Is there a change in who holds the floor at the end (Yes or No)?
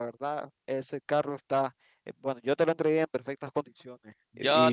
Yes